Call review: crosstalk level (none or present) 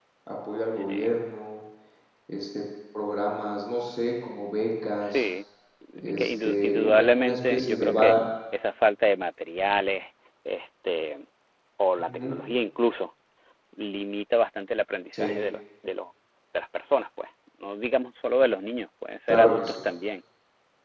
present